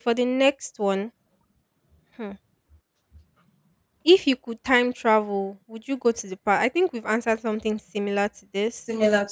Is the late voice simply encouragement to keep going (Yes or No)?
No